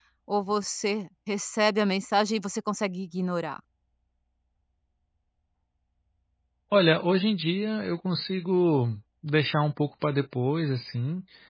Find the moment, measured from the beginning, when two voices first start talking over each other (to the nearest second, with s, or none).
none